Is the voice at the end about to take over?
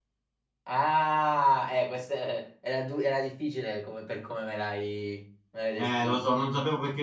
Yes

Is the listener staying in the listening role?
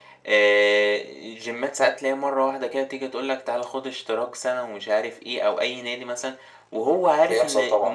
Yes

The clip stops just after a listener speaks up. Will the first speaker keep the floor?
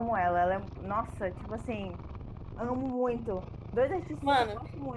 Yes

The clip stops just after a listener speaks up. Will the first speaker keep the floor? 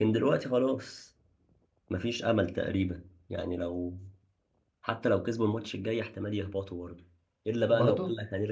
Yes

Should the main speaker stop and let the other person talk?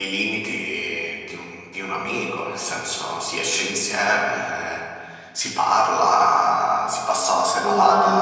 Yes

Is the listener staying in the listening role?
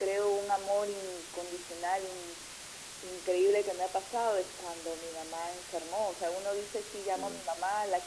Yes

